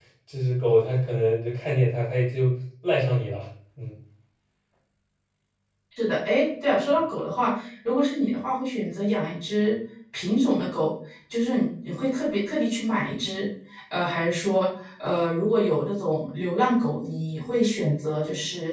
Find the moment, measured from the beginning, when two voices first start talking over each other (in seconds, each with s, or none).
none